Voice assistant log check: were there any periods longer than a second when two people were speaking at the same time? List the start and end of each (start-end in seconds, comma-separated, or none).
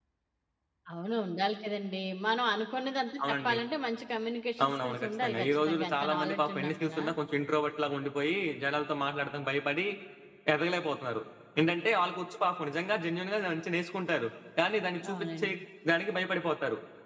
4.6-7.0